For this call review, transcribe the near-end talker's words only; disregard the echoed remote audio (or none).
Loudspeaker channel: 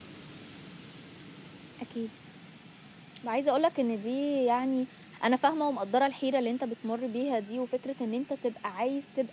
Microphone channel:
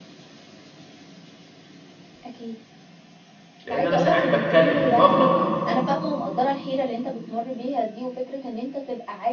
لإن أنا ساعات باتكلّم باغلط